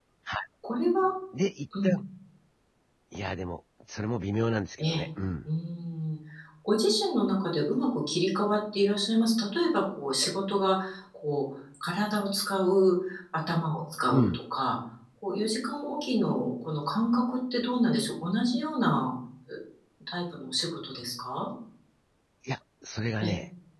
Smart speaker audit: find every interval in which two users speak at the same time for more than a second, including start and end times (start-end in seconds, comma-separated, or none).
none